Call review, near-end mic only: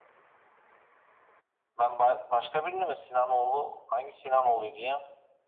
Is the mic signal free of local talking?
Yes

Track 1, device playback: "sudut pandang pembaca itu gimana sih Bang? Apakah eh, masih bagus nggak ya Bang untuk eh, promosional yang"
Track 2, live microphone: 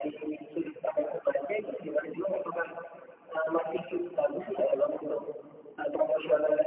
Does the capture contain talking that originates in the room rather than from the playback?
No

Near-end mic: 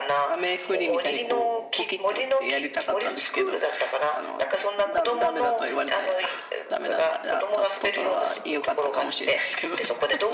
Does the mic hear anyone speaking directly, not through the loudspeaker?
Yes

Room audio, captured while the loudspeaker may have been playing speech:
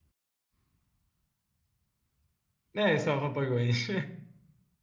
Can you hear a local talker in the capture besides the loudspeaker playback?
Yes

